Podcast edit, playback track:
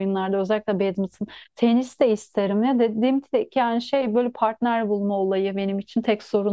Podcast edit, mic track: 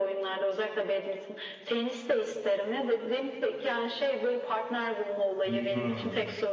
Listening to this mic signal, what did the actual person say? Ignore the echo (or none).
Hmm.